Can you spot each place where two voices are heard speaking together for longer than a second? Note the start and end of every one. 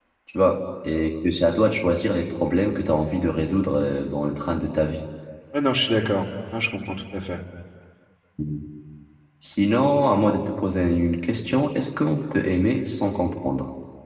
none

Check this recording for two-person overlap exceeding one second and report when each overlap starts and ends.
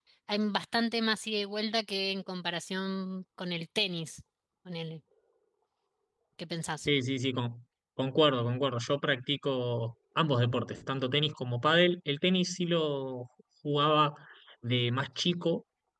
none

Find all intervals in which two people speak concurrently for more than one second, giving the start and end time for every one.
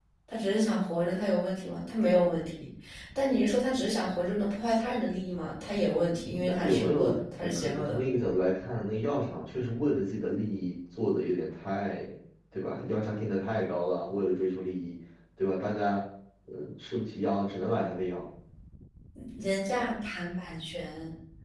6.5-8.0

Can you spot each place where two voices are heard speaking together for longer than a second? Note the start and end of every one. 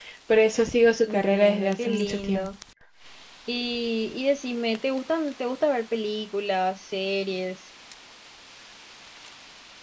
1.0-2.5

